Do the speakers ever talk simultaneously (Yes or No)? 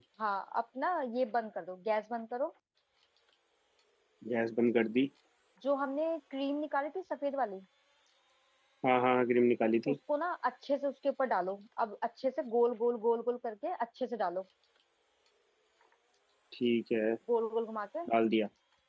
No